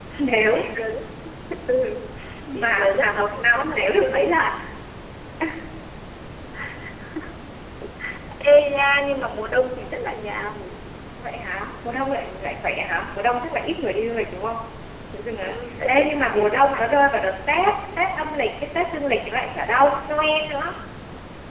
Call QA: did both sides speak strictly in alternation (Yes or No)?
No